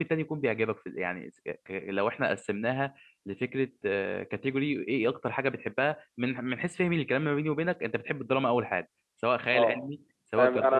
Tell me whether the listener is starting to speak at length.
Yes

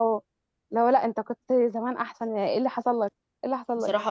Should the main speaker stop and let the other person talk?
Yes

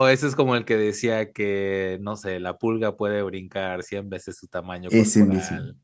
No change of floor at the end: Yes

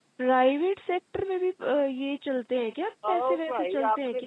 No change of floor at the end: No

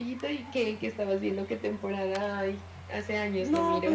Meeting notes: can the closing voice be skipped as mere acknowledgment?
No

